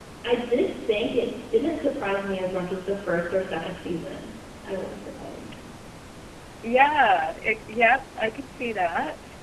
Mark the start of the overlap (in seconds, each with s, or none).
none